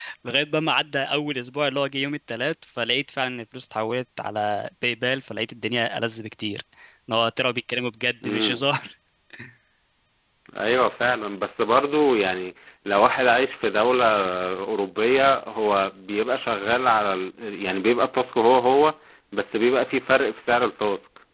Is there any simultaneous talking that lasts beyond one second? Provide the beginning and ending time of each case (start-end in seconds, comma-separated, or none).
none